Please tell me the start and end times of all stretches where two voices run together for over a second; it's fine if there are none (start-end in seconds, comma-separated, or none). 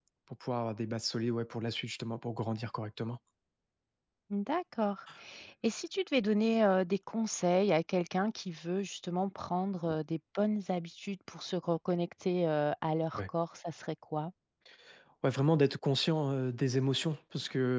none